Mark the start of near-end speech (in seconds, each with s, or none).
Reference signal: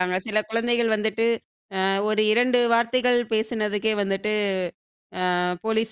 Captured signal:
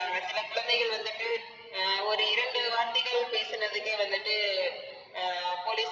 none